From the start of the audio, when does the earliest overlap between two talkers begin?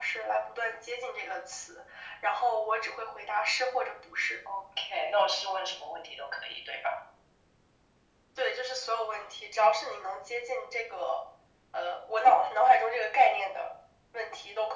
none

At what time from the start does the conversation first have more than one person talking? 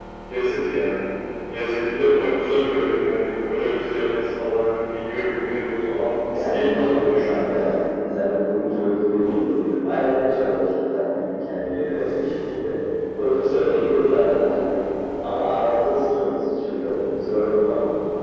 6 s

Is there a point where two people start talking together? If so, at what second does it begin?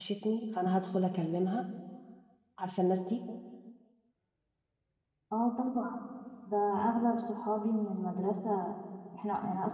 none

